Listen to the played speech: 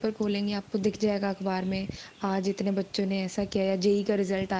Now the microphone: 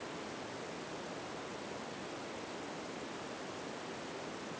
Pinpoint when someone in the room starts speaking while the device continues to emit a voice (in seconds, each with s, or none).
none